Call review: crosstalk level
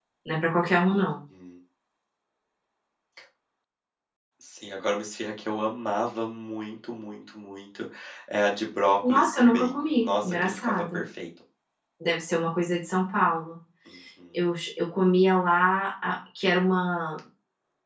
present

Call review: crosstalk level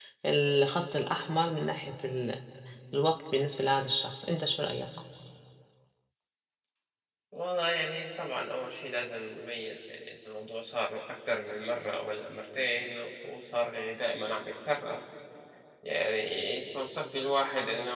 none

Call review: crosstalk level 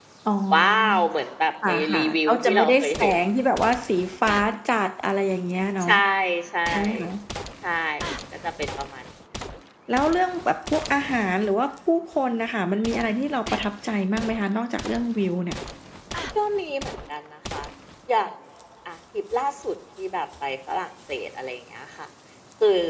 present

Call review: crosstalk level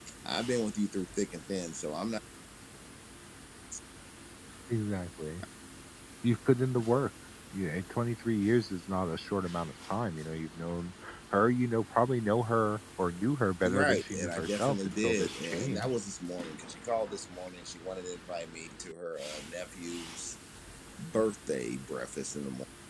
present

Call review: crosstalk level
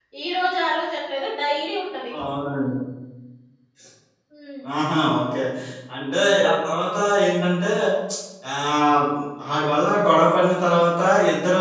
none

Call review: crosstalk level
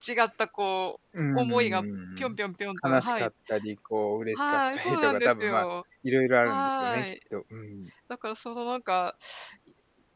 present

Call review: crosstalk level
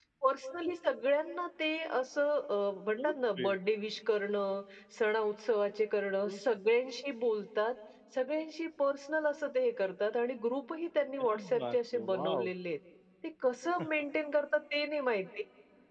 present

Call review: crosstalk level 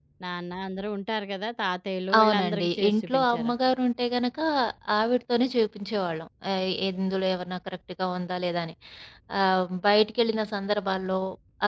present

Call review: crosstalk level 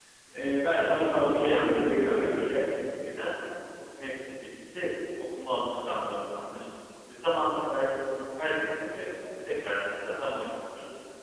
present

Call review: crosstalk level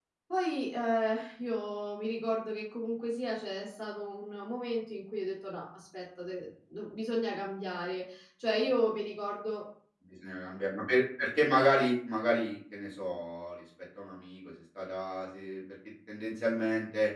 none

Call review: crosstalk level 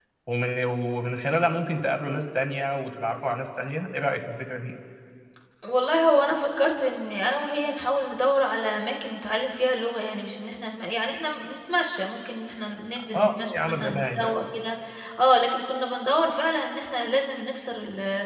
present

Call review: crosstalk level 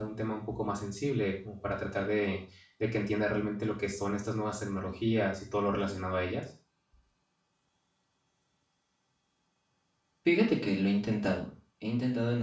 none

